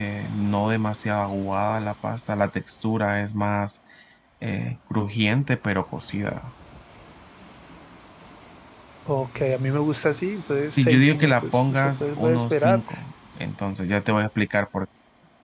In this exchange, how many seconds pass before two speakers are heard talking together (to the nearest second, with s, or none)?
11 s